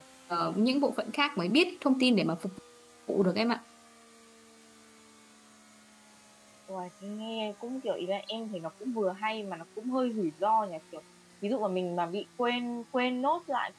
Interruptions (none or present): none